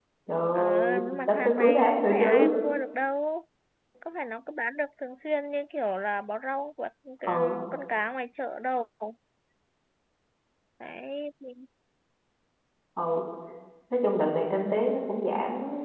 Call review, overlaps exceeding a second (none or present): present